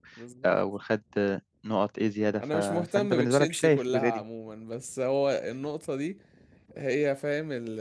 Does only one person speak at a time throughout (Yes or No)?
No